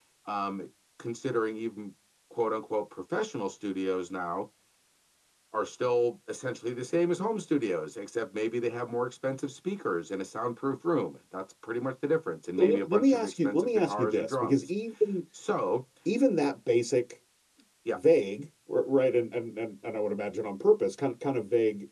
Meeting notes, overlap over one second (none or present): present